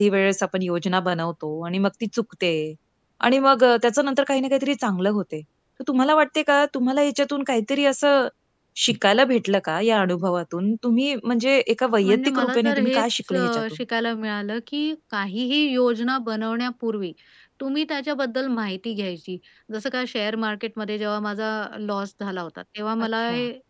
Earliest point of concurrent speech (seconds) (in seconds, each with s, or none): 12.0 s